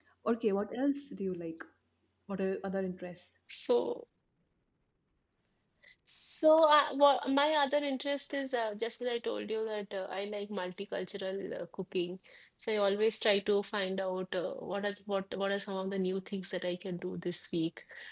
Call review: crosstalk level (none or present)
none